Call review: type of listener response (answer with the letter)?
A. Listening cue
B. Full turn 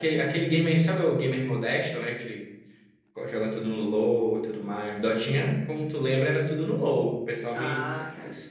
A